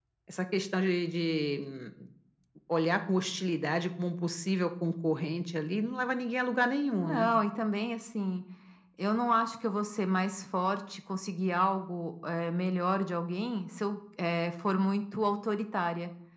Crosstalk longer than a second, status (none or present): none